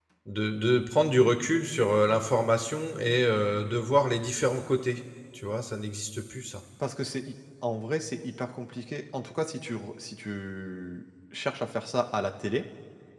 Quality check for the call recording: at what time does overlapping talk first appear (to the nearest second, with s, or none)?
none